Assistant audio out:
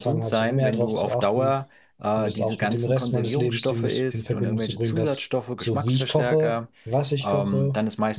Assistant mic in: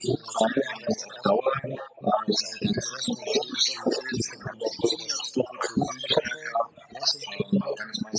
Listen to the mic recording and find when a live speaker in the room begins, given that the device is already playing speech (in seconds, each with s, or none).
none